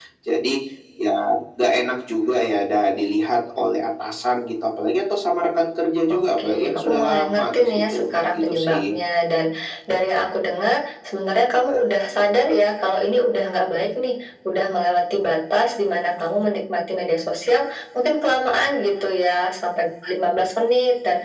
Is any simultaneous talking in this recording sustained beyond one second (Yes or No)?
Yes